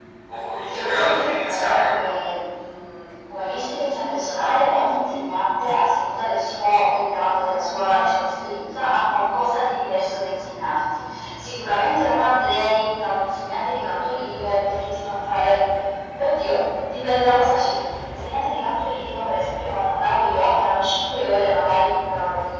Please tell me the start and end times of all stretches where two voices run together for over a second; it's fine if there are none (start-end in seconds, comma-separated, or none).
0.7-2.0